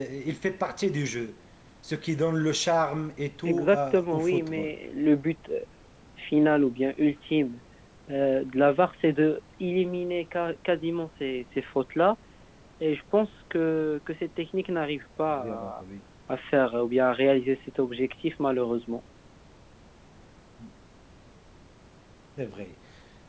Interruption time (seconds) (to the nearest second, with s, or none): 3 s